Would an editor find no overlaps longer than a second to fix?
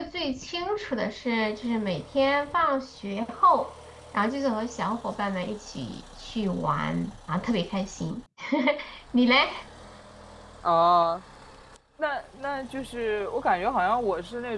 Yes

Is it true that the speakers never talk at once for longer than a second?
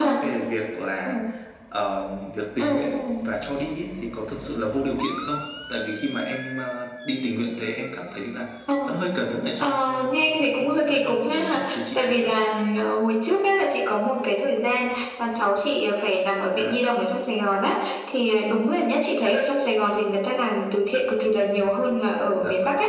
No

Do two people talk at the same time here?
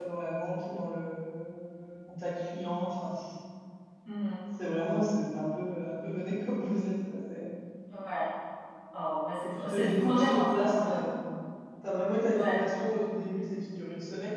Yes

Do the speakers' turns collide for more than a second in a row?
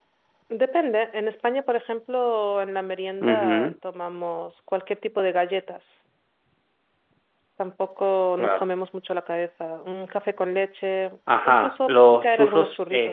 Yes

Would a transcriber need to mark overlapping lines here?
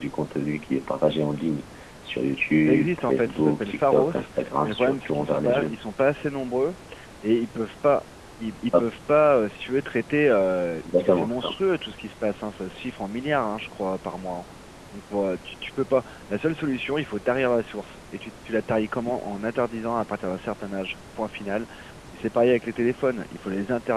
Yes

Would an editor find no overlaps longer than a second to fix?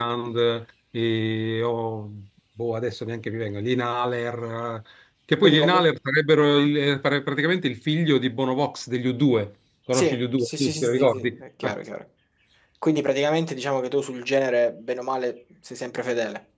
No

